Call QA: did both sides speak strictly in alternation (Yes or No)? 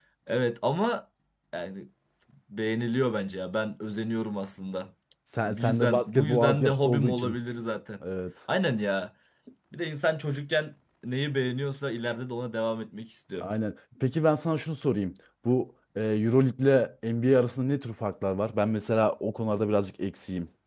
No